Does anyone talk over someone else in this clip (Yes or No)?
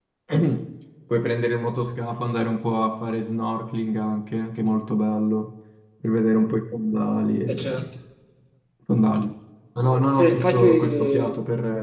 Yes